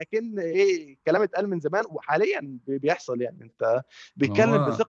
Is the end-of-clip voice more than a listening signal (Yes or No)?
No